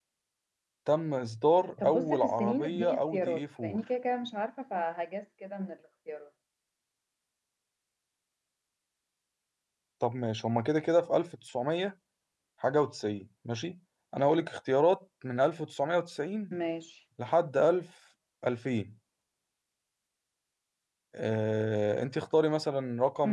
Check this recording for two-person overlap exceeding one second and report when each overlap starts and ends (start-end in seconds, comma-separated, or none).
1.8-3.8